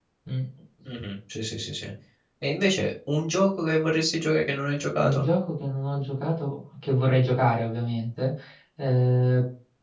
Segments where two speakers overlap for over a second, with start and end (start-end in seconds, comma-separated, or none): none